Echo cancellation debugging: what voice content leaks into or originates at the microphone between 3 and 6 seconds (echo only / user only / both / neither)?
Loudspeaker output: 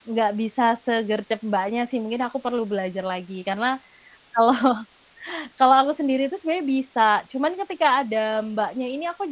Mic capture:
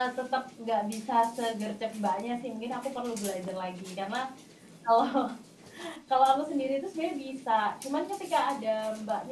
echo only